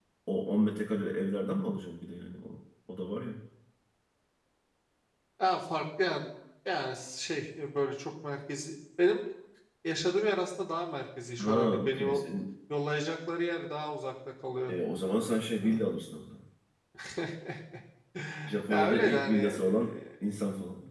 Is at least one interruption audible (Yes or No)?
Yes